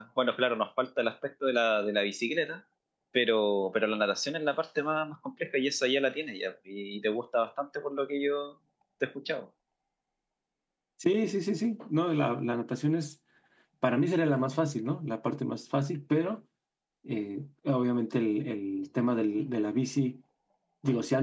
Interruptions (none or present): none